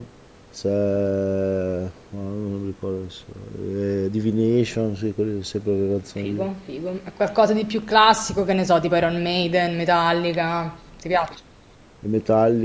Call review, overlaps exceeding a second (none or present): none